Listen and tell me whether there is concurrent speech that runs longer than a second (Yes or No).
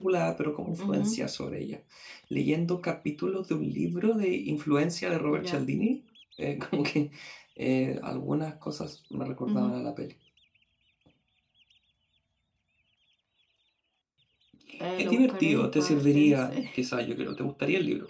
Yes